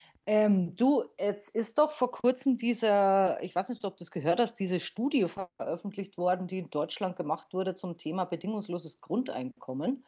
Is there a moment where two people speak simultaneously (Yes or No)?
No